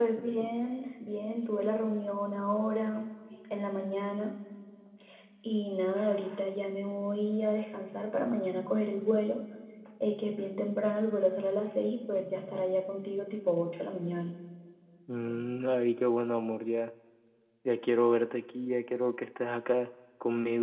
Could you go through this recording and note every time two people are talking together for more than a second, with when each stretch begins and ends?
none

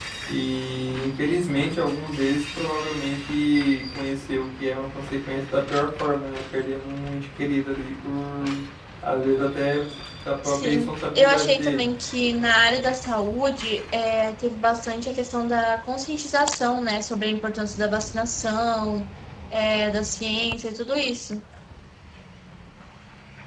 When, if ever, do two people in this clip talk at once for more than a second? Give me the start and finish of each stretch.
10.4-11.9

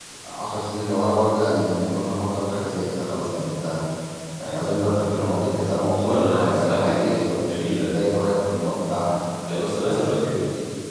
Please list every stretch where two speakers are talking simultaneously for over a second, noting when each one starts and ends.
6.0-8.0

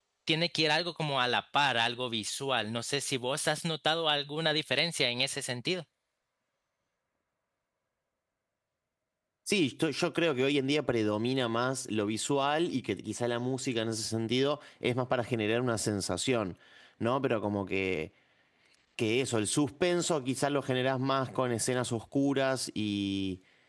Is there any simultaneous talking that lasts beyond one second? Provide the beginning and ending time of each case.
none

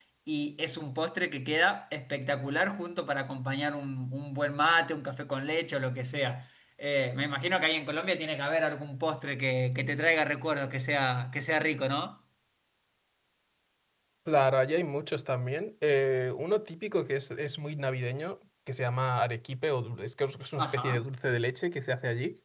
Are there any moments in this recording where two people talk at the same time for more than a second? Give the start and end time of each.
none

